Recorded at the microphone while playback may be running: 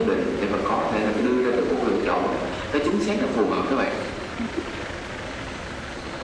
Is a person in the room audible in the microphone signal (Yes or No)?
No